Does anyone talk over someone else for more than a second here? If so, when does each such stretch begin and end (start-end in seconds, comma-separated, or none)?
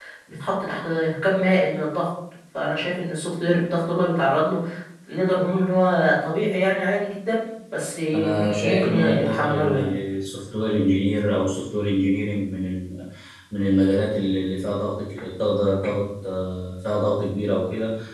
8.1-9.9